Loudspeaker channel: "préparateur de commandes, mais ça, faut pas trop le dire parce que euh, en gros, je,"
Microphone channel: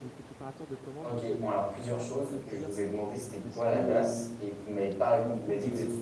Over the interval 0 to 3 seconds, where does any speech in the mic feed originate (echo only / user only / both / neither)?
both